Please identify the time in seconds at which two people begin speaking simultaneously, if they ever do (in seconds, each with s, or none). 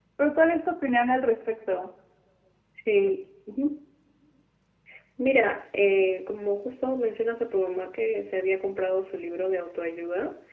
none